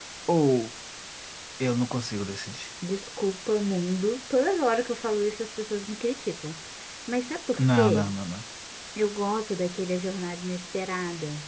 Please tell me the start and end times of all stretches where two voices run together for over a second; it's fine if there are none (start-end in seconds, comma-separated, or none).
none